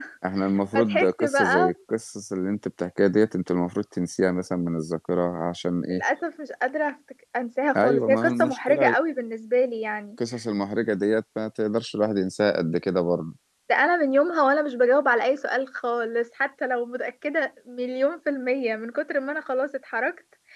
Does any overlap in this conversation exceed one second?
Yes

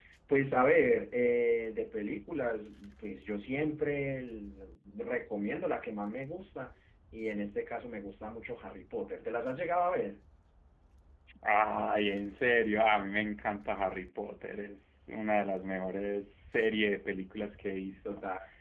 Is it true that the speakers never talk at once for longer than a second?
Yes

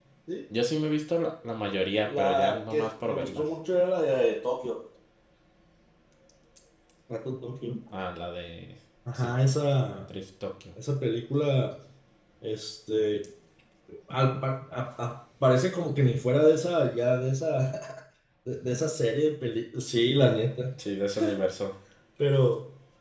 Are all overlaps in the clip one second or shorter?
No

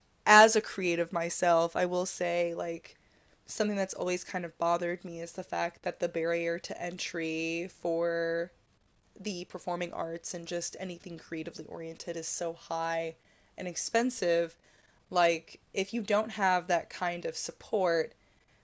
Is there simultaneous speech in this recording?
No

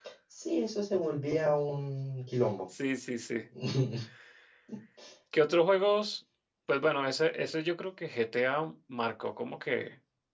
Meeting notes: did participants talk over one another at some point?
No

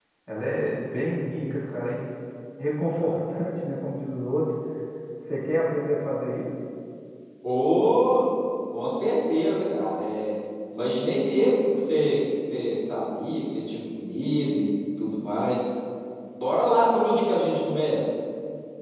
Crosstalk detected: No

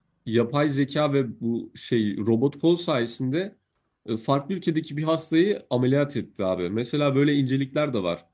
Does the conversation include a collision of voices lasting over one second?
No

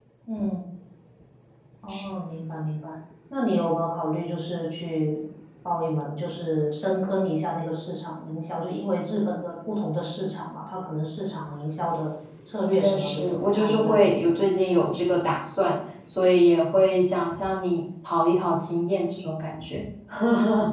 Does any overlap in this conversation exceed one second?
Yes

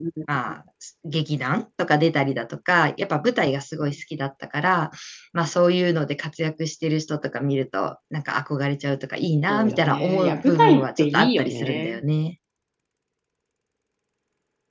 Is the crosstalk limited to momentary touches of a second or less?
No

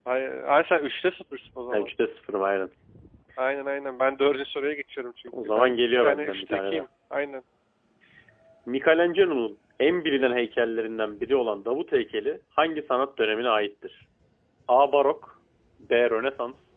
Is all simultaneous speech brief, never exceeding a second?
No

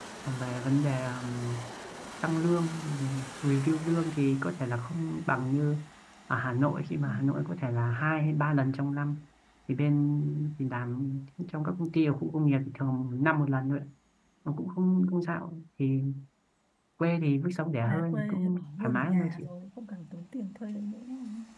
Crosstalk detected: Yes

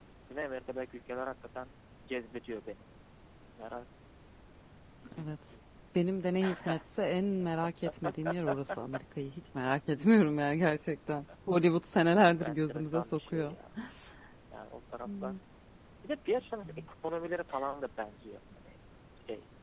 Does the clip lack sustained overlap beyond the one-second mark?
No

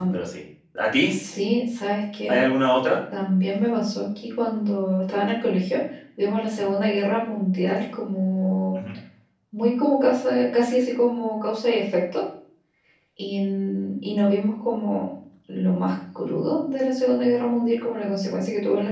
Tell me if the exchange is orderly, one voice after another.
Yes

